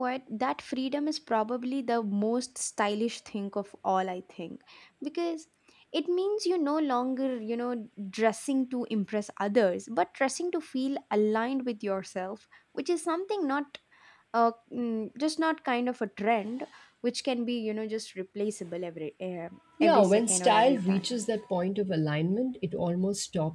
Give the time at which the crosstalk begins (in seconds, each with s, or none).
19.8 s